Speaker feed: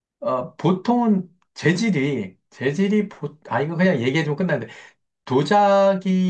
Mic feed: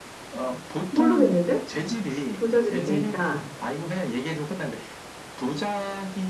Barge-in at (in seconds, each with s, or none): 0.9 s